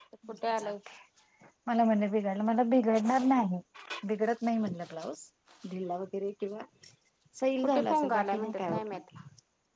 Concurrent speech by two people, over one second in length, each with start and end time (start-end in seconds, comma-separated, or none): 7.6-9.0